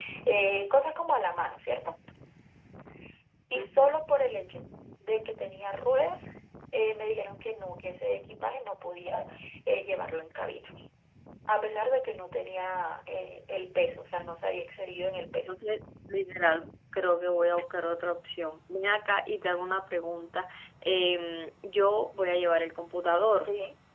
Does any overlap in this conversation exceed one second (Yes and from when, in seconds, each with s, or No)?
No